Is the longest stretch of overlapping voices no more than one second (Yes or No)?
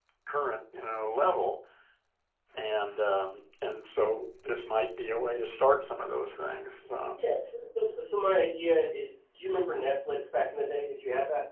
Yes